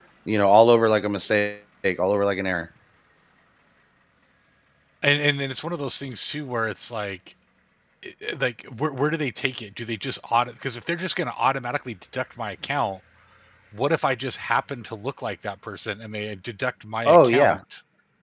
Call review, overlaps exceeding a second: none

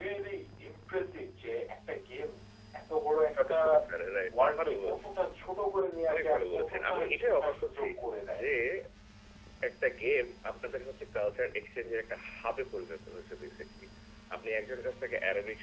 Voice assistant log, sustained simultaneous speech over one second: present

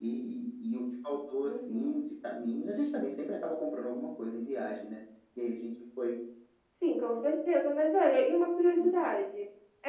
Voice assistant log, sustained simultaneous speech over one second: none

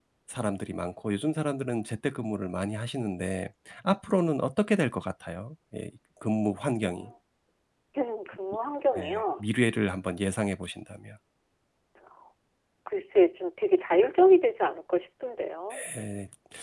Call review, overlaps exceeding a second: none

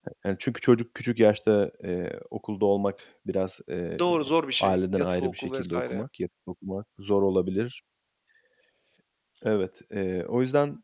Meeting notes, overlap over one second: present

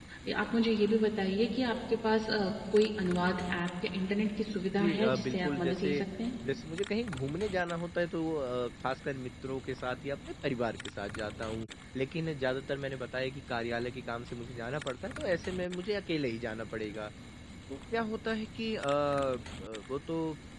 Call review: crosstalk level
present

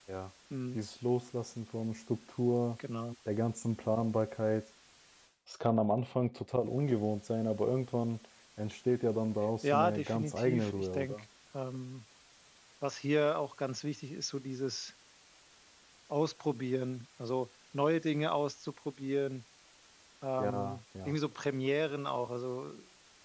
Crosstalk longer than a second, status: present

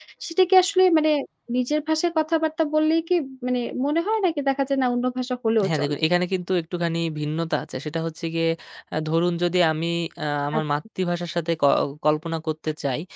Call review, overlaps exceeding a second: none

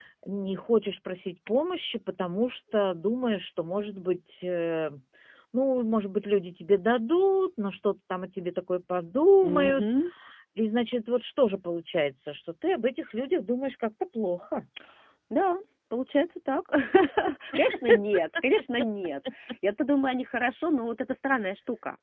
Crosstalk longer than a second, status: none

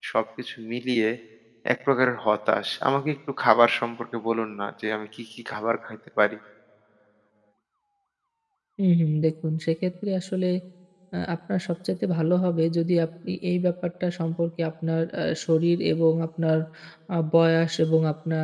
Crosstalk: none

